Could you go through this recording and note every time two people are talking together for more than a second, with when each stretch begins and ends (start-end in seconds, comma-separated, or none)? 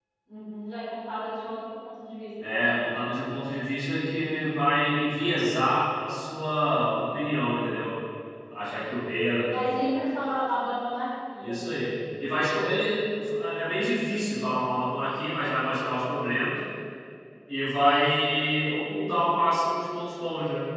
none